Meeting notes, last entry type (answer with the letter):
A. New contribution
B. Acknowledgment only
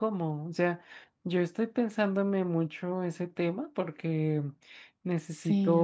B